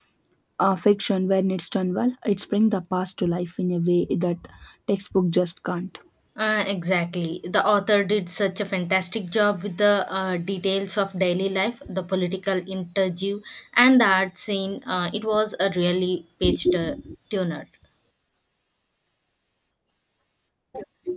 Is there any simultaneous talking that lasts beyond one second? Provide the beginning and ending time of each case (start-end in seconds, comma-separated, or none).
none